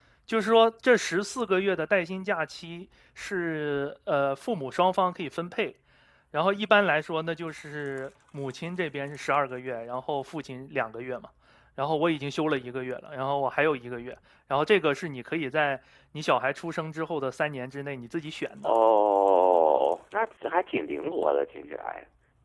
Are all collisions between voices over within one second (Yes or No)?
Yes